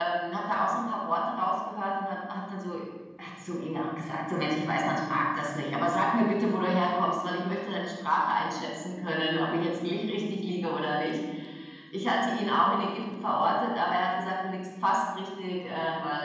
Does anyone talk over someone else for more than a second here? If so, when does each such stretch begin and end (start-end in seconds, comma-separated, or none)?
none